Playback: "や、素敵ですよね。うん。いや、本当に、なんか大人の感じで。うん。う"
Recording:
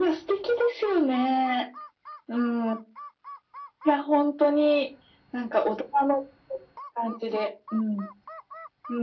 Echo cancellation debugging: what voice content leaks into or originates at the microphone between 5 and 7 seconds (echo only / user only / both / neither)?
echo only